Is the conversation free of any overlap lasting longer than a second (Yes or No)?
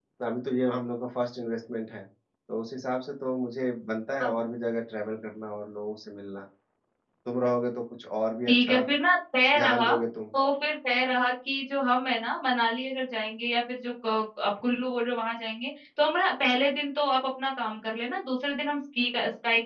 Yes